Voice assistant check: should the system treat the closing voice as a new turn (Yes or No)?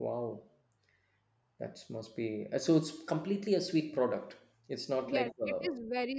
Yes